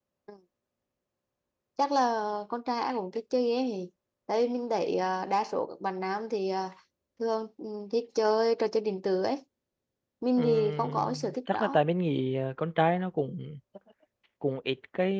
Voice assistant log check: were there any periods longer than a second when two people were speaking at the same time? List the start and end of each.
10.4-11.8

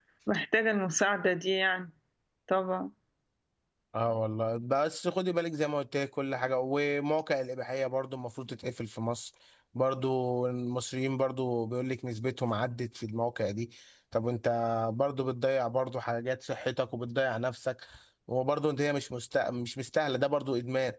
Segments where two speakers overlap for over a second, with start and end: none

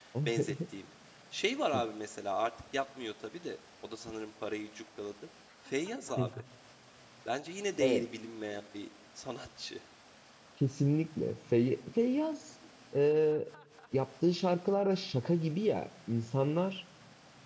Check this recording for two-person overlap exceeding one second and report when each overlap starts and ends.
none

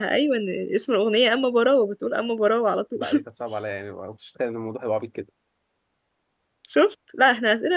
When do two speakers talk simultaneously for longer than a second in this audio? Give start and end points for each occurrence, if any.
none

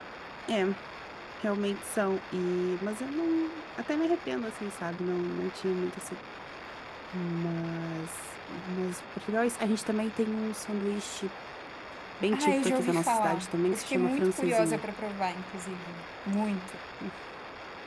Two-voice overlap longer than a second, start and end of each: 12.3-14.8

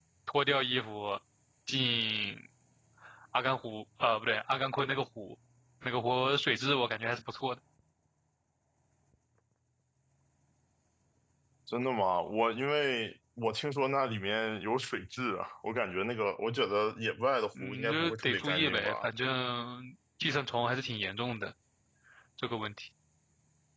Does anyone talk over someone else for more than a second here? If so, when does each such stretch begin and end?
17.6-19.1

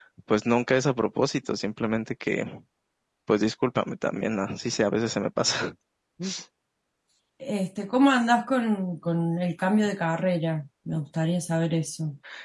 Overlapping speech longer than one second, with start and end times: none

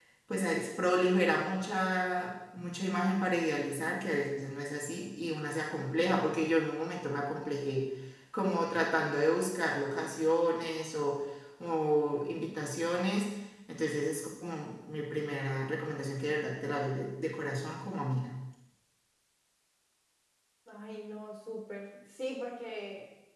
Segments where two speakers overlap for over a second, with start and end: none

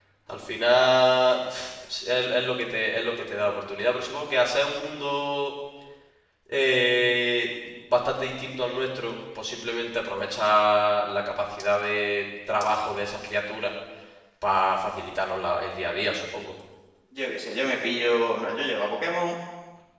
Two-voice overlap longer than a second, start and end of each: none

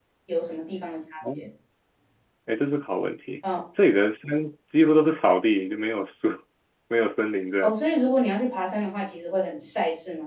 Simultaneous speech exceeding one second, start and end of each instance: none

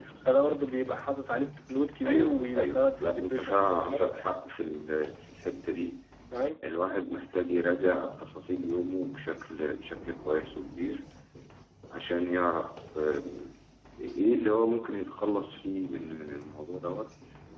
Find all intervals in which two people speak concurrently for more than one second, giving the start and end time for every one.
2.1-3.7

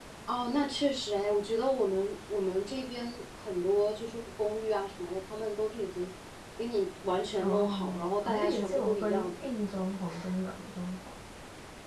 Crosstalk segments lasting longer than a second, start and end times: 7.4-9.3

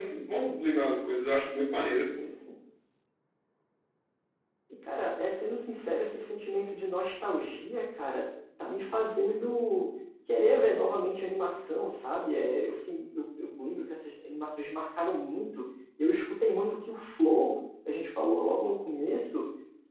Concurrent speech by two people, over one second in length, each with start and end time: none

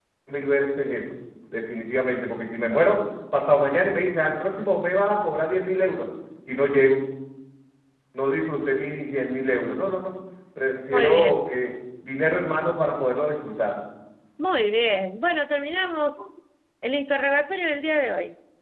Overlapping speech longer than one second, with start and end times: none

